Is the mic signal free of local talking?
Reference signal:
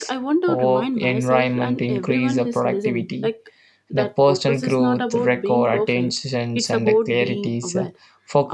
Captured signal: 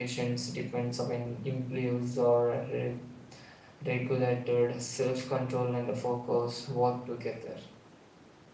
No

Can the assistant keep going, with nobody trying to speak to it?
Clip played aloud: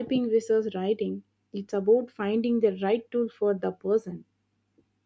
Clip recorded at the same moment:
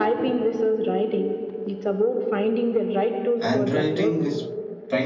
No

